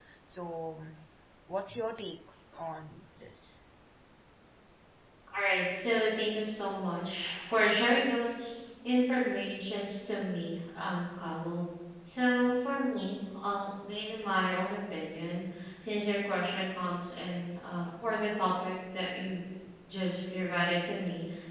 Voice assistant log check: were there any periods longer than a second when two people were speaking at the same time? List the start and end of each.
none

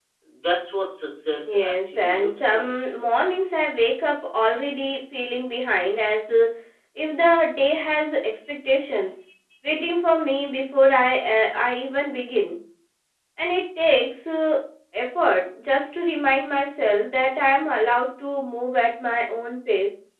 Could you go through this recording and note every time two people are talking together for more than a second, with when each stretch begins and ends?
1.4-2.7

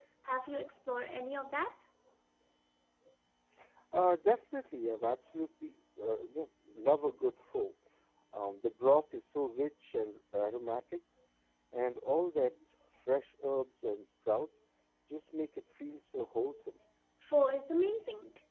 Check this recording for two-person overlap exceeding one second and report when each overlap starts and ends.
none

